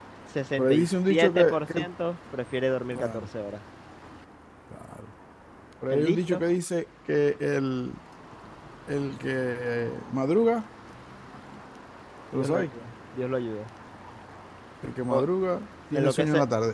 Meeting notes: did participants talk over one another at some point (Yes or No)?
Yes